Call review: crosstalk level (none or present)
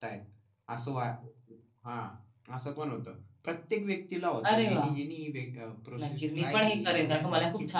present